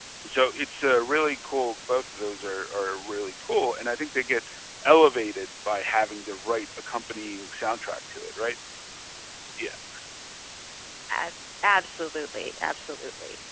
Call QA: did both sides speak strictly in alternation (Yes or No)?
Yes